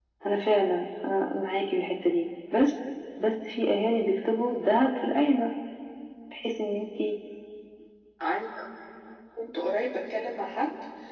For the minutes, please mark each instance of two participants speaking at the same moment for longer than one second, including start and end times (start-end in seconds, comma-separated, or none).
none